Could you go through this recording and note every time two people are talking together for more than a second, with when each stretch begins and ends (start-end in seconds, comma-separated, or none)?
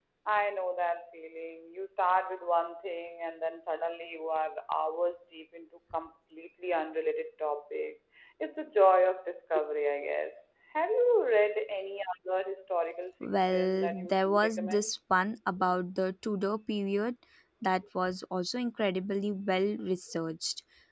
13.4-15.0